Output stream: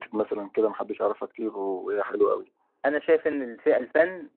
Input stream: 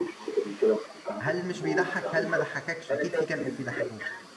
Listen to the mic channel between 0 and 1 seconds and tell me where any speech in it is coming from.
echo only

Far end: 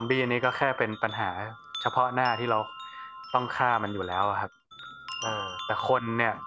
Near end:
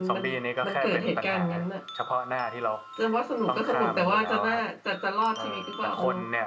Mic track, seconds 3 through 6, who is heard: both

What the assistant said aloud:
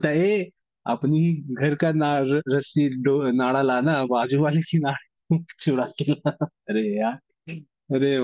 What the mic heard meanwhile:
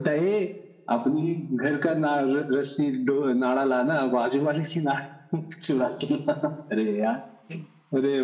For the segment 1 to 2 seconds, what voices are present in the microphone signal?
echo only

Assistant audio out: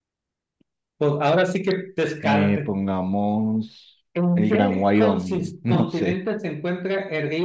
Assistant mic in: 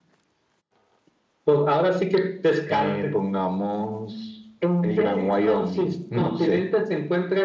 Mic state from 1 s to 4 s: echo only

